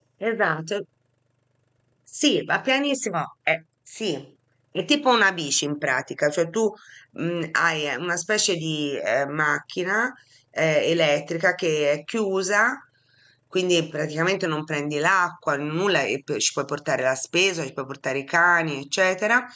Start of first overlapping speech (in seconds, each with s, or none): none